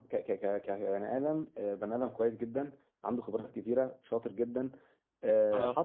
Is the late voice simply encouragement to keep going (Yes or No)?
Yes